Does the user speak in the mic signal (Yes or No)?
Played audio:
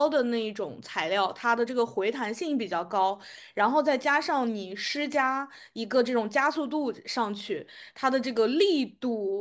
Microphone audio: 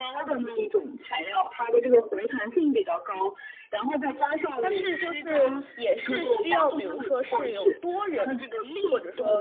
Yes